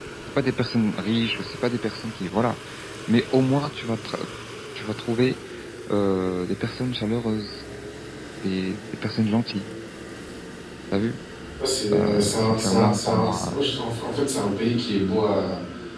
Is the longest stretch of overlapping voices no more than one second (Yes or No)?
No